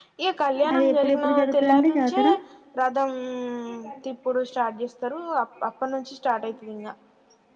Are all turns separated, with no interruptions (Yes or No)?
No